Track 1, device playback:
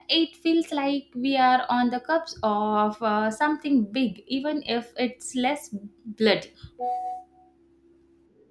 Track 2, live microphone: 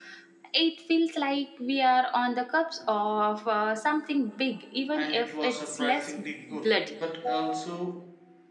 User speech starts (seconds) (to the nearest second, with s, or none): 5 s